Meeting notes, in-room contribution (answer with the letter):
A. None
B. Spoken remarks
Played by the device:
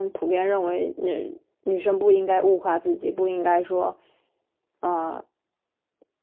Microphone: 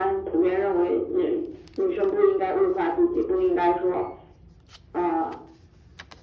A